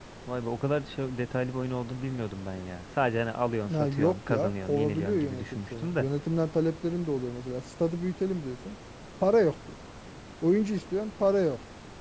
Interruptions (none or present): present